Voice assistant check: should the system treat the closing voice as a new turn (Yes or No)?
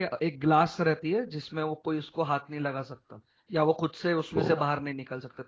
No